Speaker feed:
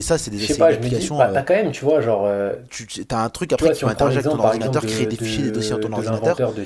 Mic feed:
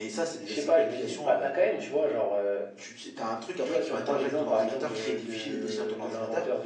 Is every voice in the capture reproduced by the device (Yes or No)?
Yes